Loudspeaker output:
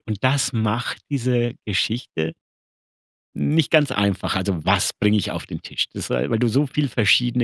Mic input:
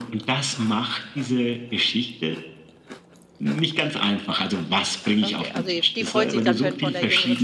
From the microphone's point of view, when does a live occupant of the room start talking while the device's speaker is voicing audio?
5 s

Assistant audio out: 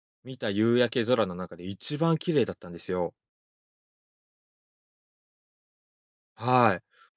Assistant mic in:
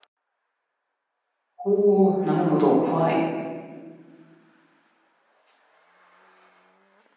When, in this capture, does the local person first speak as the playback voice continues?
2 s

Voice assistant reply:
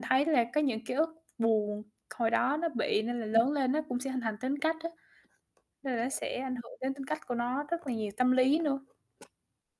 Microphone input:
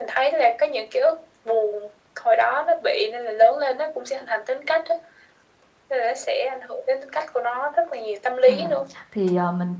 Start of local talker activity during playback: 8 s

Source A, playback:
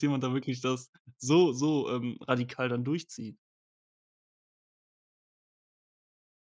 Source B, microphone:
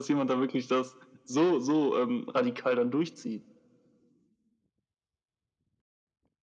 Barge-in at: none

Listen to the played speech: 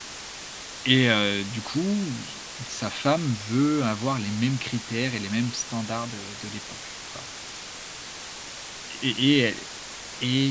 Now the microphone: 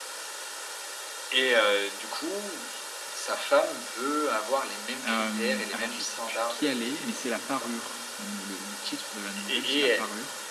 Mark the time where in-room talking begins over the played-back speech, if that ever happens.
5 s

